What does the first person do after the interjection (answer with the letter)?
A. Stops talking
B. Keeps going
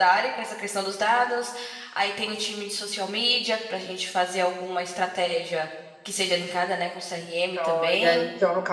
A